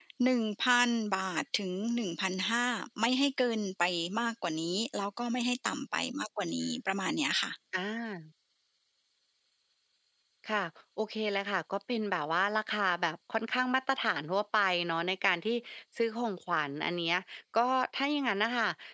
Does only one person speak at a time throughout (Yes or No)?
Yes